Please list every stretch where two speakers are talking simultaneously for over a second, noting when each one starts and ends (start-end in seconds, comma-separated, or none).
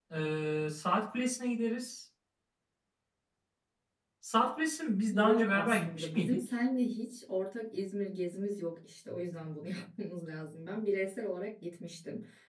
5.1-6.5